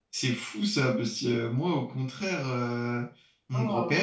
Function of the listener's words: listening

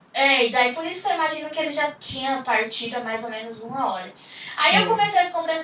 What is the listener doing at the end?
listening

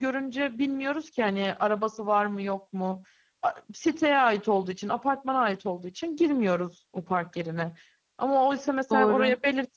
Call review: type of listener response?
listening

